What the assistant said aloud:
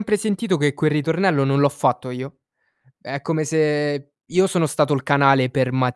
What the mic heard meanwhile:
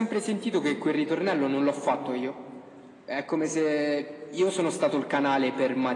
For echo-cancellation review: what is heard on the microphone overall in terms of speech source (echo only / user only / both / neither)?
echo only